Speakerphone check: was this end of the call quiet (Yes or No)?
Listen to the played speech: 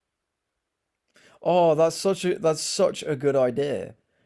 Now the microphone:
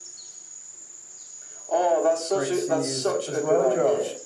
No